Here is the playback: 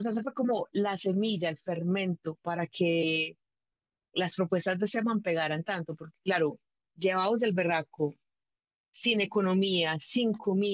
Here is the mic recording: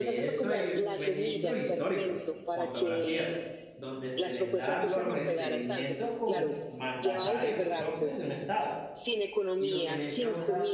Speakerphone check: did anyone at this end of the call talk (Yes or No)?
Yes